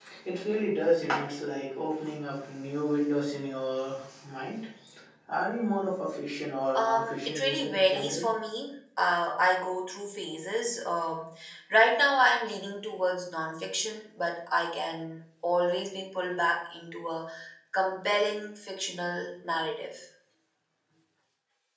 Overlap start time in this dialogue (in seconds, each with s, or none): 6.8 s